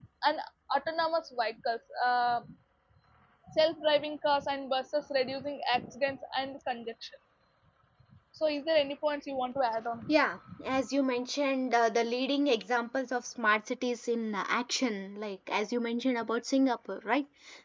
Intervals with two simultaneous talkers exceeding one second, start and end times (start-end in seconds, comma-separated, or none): none